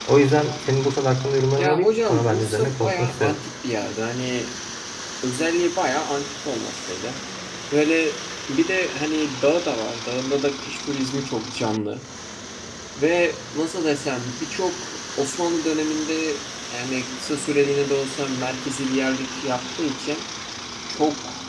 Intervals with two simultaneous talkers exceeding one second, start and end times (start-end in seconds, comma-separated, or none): 1.6-3.4